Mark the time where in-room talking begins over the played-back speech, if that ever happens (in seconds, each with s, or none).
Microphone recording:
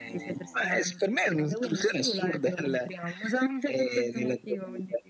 none